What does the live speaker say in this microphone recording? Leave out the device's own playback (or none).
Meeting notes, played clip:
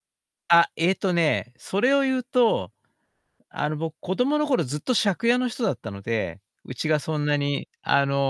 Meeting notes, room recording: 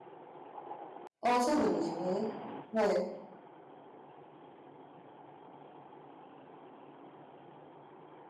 ああ、そうなんですね。はい。